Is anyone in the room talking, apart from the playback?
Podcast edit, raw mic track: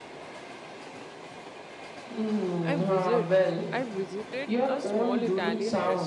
Yes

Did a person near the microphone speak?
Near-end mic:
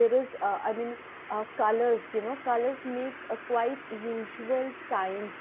Yes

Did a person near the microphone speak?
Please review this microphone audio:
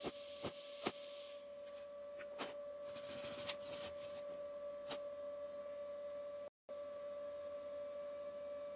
No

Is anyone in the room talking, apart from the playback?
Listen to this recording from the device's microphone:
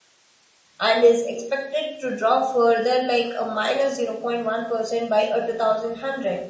Yes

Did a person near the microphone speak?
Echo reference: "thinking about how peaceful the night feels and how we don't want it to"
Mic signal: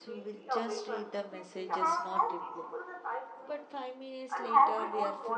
Yes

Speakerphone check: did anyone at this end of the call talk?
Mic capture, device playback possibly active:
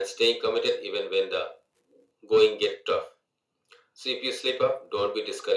No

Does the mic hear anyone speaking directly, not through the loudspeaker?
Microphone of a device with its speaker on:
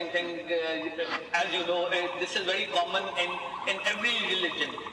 No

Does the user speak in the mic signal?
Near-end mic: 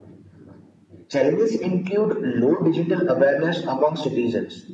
No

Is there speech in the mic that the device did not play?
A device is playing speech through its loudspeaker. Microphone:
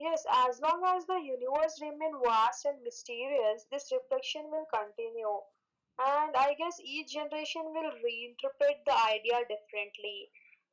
No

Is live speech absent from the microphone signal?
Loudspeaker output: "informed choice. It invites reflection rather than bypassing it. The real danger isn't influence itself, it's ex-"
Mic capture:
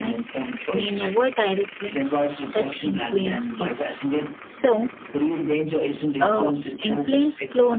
No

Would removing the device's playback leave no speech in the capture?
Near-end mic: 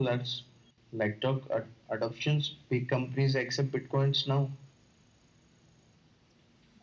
Yes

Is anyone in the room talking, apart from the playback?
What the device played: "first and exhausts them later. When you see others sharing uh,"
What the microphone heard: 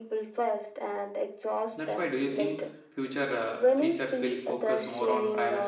Yes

